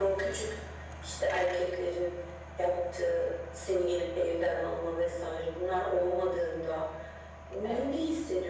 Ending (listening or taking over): listening